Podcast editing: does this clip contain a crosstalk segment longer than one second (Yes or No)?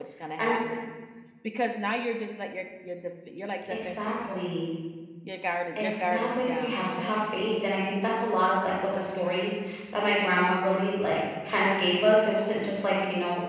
Yes